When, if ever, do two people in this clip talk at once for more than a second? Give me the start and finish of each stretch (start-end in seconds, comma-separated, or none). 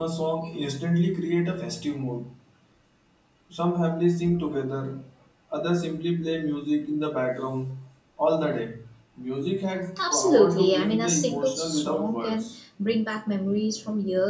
10.1-12.5